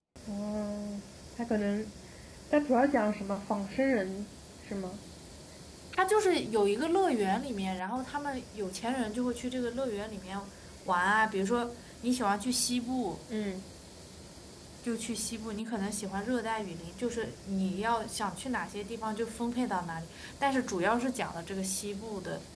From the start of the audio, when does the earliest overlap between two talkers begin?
none

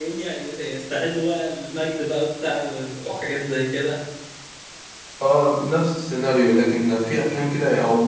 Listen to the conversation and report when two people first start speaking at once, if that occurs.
none

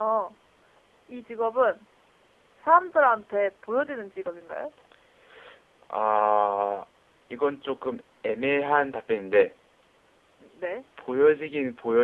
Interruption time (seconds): none

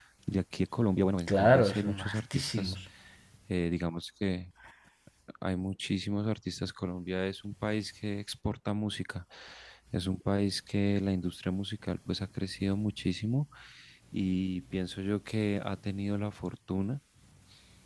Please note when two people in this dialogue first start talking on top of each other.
1.3 s

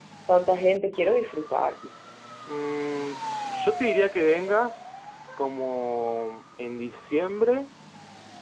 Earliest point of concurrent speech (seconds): none

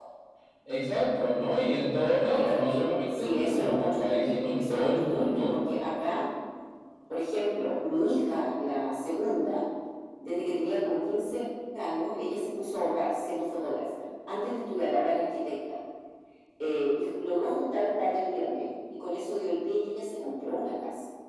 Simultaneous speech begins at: 2.3 s

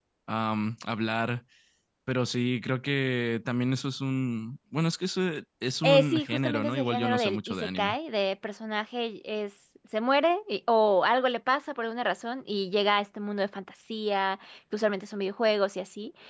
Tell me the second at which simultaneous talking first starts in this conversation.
5.8 s

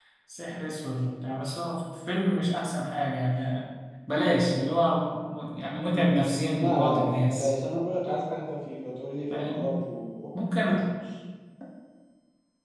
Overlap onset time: 5.9 s

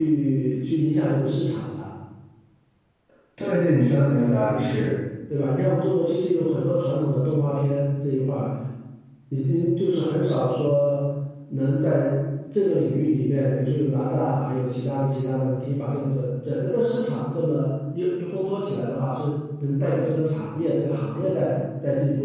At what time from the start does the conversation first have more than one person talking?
none

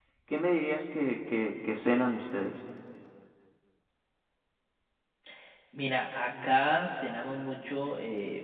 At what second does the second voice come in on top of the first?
none

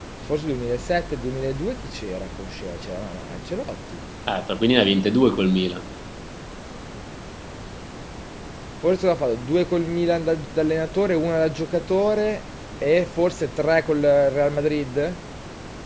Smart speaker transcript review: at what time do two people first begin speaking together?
none

